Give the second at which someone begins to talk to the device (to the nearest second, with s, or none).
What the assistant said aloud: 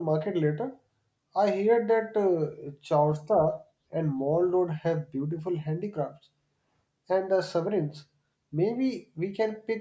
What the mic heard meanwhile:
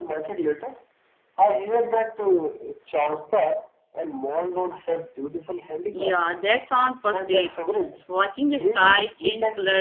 6 s